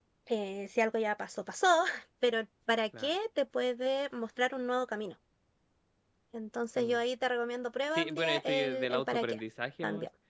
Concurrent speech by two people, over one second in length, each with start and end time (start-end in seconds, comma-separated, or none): 8.0-9.4